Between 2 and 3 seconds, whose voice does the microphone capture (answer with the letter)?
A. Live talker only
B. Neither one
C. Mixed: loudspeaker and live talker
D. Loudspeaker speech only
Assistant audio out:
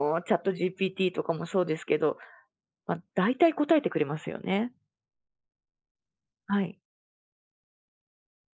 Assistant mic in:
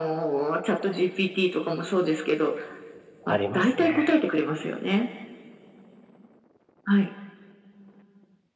D